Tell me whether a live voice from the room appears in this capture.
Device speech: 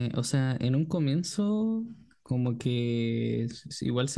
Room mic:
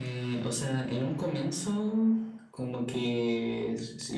No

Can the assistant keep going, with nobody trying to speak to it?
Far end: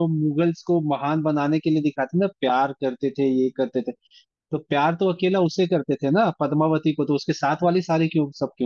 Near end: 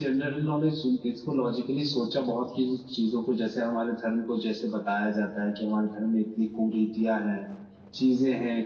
No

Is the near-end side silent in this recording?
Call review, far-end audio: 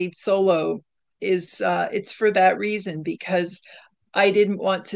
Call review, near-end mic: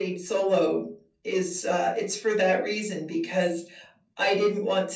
Yes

